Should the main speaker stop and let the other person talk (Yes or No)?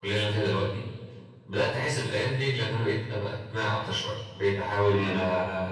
No